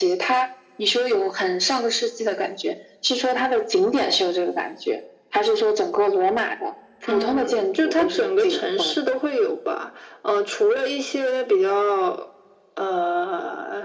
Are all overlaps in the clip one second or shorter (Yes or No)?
No